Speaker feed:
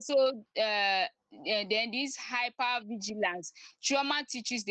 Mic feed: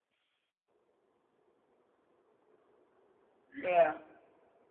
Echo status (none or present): none